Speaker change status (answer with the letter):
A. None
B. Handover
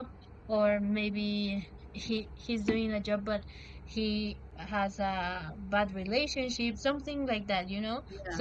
A